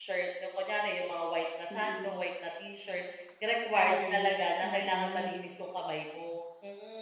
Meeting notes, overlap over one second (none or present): present